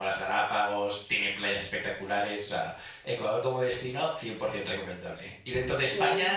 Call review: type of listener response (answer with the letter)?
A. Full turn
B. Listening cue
B